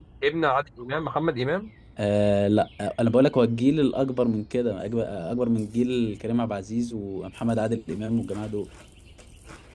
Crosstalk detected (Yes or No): No